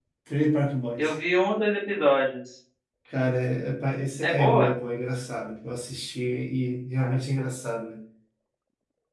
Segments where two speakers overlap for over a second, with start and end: none

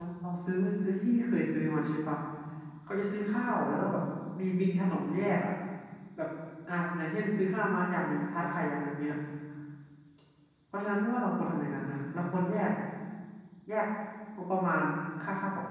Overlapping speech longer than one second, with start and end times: none

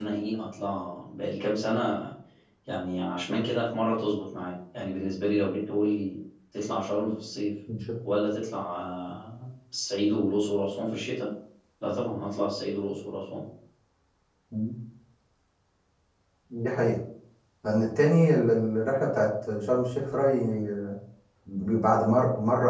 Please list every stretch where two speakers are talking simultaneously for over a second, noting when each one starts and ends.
none

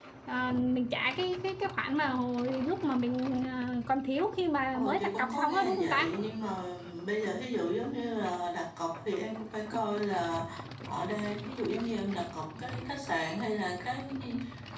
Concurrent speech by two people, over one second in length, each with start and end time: 4.7-6.1

